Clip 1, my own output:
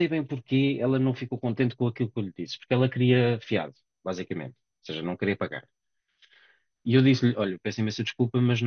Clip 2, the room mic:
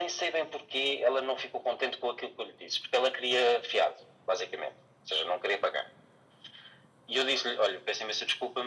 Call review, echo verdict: present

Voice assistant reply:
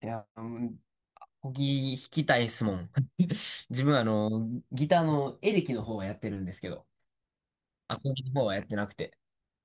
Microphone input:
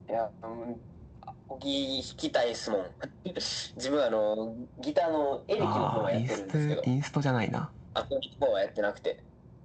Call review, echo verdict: present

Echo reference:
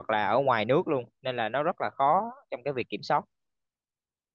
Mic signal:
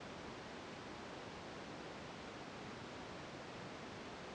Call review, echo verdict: none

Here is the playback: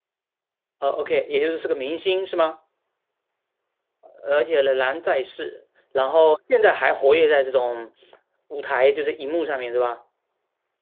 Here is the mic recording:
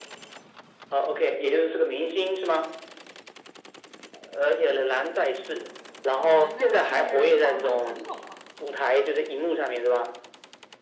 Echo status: present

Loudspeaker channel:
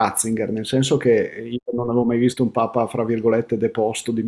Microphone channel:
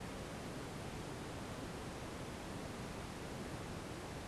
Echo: none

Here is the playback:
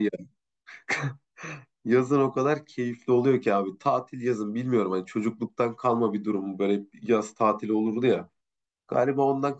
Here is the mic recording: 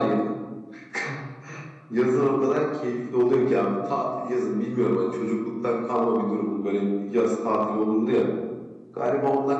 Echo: present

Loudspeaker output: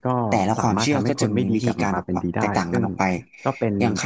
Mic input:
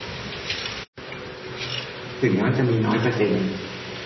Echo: none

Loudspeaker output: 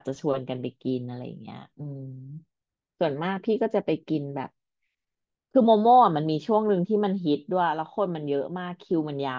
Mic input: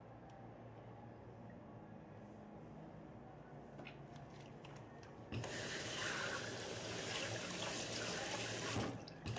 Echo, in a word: none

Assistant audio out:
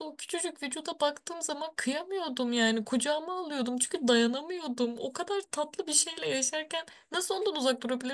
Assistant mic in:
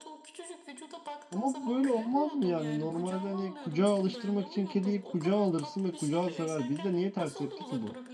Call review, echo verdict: present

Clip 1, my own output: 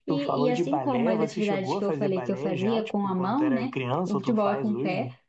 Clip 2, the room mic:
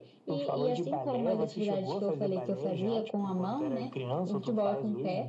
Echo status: present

